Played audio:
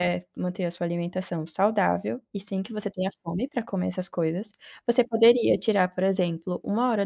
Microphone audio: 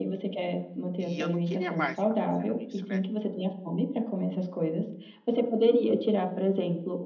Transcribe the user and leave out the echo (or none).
E eu não queria mais ficar fazendo isso, né.